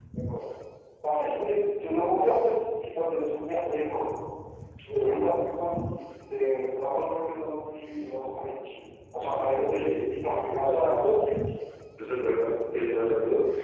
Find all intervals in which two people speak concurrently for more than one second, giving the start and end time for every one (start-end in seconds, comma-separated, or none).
9.2-11.1